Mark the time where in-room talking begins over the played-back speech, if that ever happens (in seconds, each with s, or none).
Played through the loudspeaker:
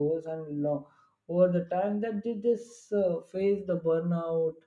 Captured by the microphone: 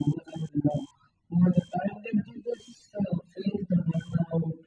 none